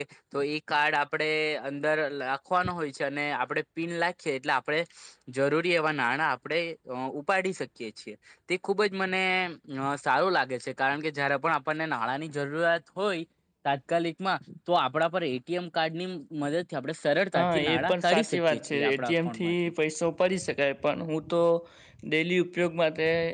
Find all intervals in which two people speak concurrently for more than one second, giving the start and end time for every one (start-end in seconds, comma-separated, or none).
17.3-19.5